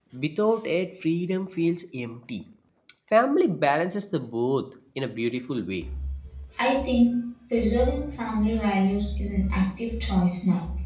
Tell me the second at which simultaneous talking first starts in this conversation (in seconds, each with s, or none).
none